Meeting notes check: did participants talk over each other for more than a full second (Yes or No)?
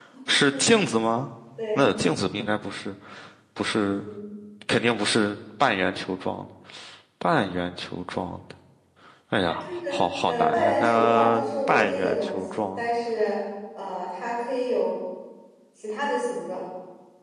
Yes